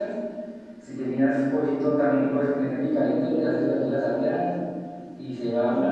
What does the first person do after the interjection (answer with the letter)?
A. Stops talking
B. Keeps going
B